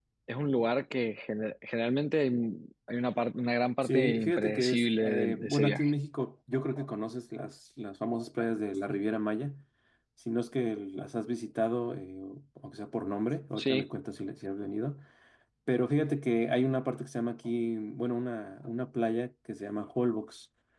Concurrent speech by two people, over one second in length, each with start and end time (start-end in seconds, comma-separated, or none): 3.8-5.9